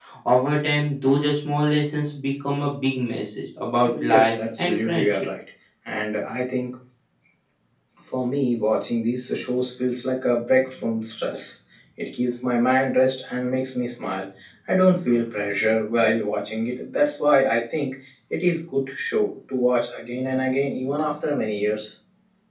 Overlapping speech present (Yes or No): Yes